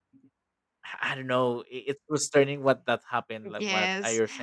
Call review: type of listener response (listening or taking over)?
taking over